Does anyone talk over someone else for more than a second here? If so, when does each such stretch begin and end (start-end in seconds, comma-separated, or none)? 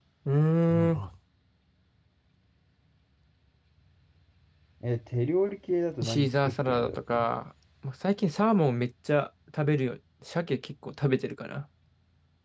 6.0-7.3